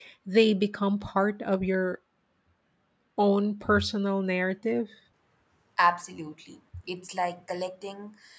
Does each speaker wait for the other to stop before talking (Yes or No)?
Yes